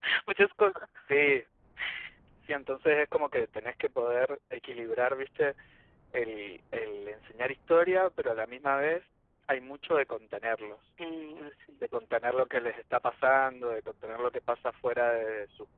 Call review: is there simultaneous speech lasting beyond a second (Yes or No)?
No